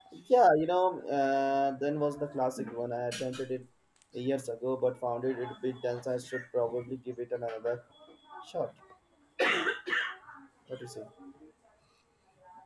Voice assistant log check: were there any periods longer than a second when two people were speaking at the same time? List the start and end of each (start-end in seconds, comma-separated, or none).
none